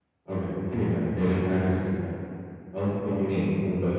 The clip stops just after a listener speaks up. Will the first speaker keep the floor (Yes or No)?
Yes